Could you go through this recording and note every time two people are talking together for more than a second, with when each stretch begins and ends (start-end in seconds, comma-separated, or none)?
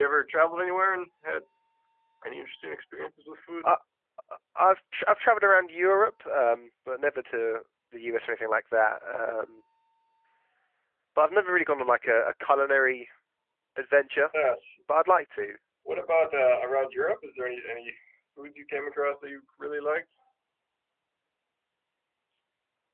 none